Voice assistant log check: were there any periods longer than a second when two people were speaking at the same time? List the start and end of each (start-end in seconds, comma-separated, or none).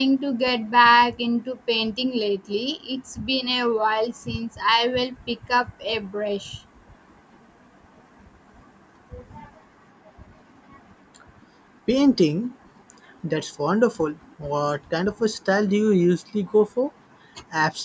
none